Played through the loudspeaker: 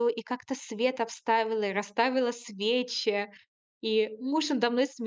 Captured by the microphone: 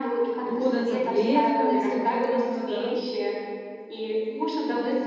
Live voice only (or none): Укутаться пледиком, если холодно, да?